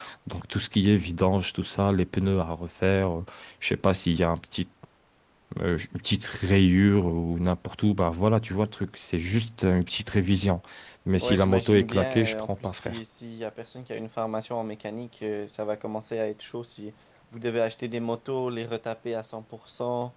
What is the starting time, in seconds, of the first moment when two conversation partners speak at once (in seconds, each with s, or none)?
11.2 s